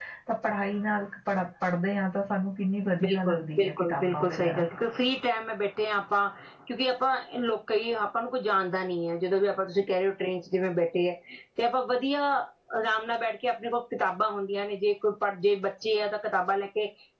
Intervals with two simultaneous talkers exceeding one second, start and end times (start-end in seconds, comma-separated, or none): 3.0-4.4